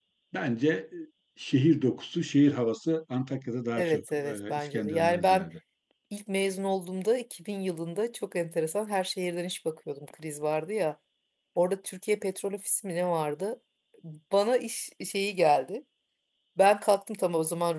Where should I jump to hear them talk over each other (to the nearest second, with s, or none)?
4 s